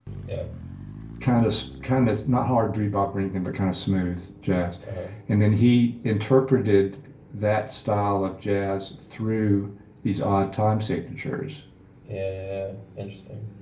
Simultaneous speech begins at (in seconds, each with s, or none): none